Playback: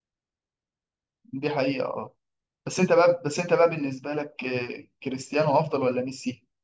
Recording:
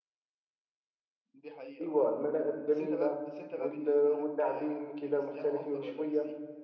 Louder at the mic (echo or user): user